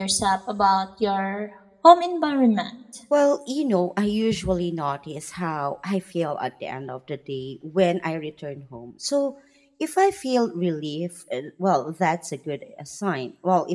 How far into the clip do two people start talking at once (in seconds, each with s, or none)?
none